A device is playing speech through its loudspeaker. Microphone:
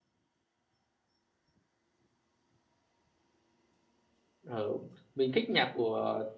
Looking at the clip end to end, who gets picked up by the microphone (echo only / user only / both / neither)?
user only